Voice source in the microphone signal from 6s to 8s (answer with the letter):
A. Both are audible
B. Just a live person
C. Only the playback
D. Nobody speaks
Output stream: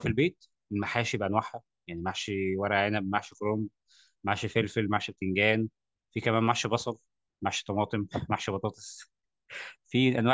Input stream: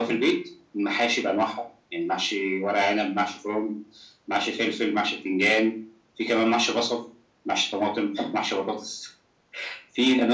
C